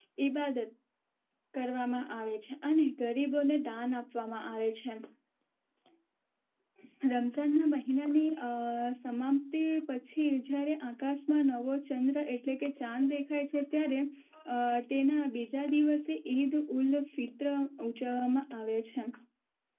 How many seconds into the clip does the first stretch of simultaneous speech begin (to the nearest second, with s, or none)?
none